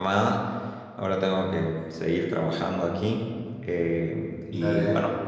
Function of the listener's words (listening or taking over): listening